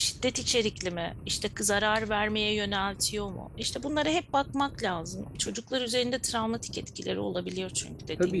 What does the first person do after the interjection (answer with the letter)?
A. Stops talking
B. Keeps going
A